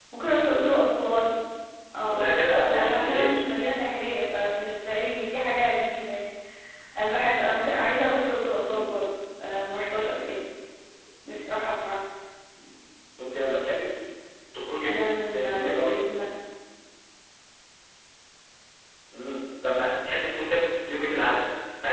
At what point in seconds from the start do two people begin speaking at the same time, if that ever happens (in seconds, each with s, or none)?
2.1 s